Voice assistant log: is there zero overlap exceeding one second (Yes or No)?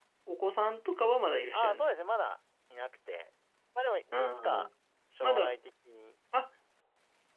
Yes